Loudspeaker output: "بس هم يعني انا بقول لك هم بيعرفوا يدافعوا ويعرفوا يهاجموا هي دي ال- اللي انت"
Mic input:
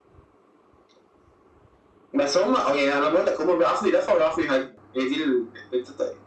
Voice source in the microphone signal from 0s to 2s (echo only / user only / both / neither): neither